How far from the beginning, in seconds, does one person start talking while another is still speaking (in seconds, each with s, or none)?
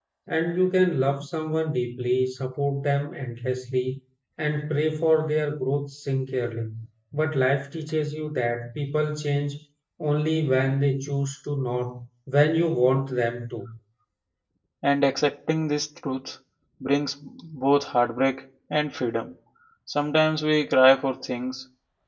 none